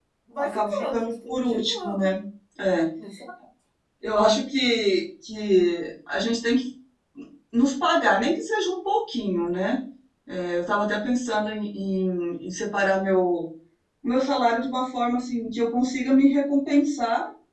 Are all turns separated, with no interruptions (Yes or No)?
No